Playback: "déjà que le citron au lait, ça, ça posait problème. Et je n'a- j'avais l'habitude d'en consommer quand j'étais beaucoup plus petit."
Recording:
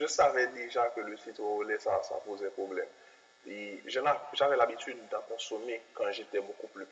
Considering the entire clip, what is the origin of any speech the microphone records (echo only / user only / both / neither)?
echo only